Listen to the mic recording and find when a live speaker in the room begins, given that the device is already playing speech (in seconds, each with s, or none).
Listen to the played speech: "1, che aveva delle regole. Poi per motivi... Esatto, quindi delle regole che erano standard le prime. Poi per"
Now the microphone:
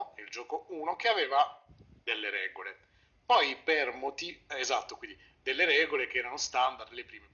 none